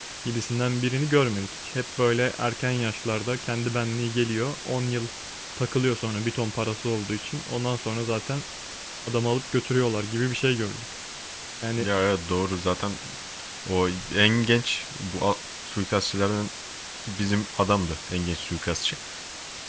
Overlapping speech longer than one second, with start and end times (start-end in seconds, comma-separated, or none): none